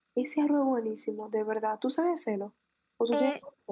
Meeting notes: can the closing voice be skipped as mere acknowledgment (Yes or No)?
No